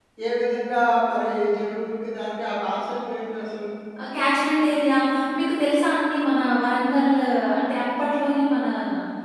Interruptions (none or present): none